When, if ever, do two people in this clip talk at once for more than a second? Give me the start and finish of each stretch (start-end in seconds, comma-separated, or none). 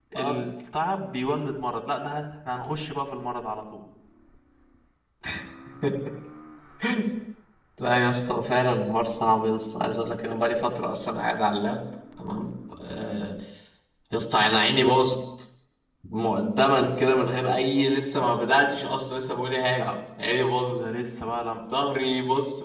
none